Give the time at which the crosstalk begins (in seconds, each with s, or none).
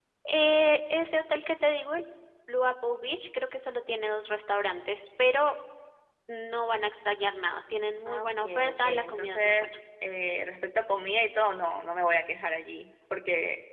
8.1 s